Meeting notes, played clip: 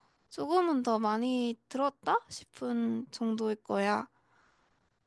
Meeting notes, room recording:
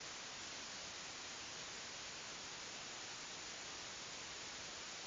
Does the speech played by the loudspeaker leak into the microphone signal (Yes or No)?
No